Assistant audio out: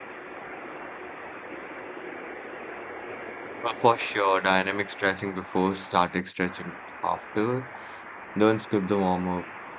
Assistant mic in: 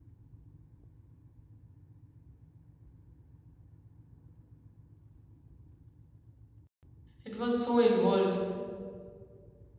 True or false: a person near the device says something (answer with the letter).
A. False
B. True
B